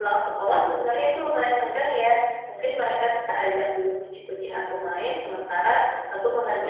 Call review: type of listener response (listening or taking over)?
listening